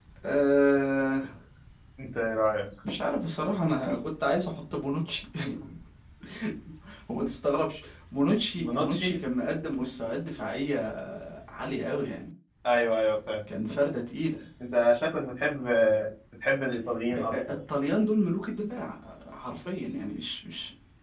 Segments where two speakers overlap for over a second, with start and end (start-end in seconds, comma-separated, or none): none